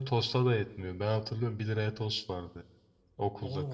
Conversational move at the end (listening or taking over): taking over